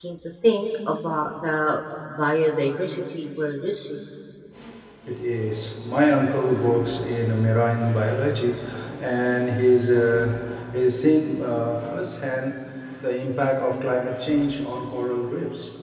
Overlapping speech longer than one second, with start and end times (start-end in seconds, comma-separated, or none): none